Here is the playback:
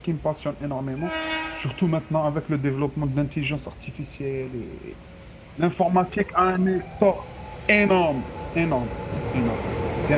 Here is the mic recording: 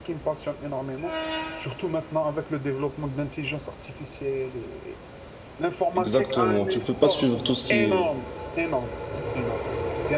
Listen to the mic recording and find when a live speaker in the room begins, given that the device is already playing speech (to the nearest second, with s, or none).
6 s